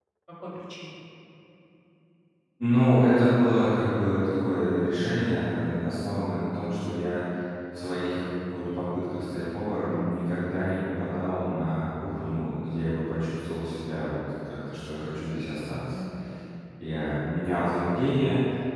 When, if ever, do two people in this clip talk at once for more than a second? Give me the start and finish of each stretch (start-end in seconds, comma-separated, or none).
none